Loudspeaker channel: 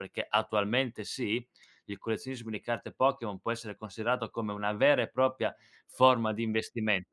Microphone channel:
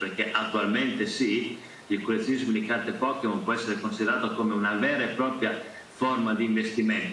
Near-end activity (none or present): none